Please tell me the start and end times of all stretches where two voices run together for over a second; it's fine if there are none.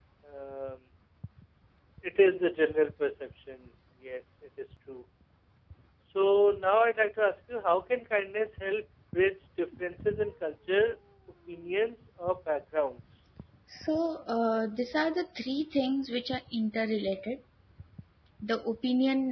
none

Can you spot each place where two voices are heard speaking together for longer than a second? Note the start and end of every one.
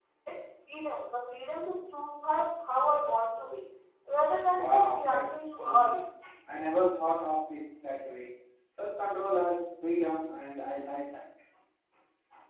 4.5-6.0

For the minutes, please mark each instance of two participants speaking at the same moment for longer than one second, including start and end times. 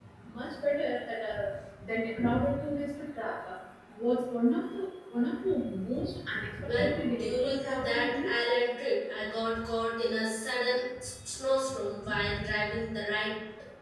6.6-8.4

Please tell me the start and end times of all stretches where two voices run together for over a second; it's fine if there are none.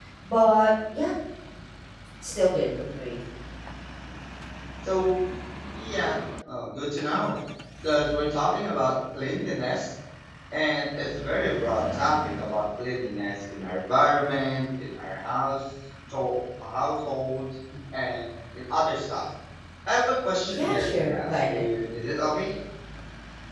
20.5-21.7

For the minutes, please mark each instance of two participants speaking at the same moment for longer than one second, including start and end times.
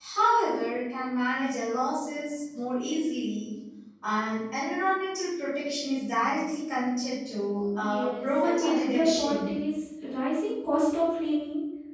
7.8-9.5

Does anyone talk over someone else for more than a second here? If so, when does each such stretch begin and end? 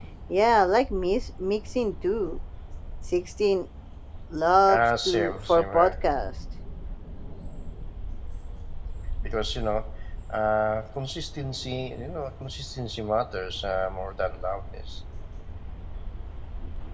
4.7-6.0

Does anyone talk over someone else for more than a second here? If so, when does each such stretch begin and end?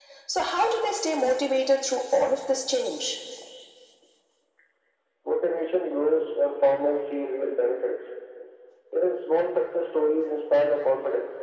none

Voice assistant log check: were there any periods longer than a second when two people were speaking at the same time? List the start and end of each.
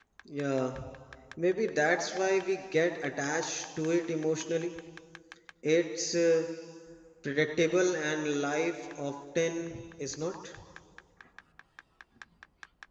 none

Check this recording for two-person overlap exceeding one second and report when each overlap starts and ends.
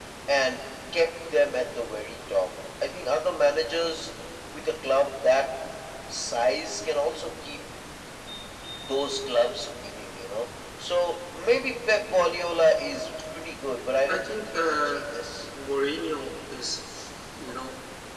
13.8-15.0

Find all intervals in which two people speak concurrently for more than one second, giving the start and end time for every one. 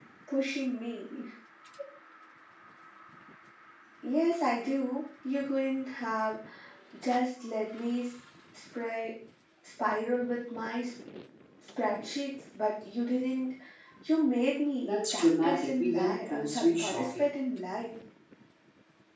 14.8-17.3

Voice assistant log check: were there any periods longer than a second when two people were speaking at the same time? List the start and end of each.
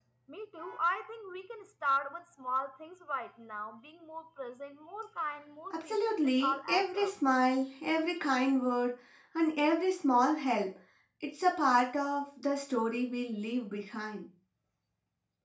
5.7-7.1

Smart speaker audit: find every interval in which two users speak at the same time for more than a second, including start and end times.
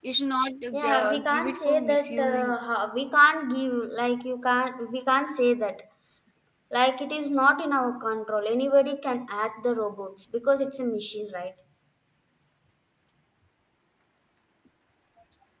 0.7-2.5

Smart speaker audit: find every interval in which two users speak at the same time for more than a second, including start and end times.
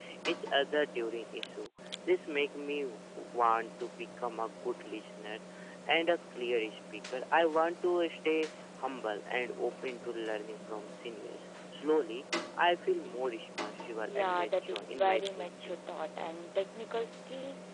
14.2-15.8

